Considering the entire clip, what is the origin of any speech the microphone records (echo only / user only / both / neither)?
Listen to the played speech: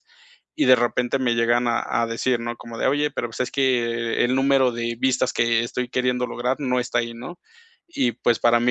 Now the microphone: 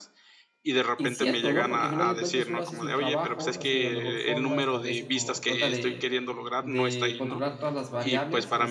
both